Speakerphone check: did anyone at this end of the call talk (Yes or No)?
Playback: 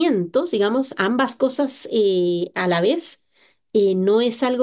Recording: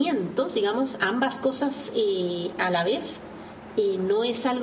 No